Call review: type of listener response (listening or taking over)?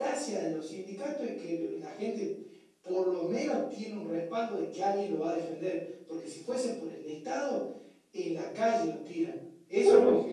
taking over